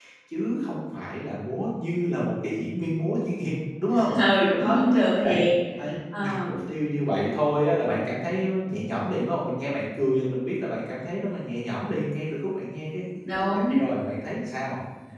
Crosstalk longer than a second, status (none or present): none